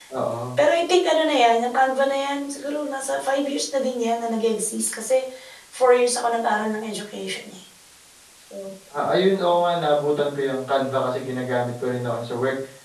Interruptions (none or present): none